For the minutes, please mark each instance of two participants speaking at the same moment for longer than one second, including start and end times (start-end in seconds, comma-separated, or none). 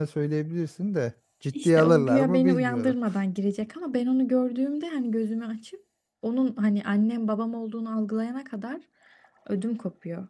1.6-2.9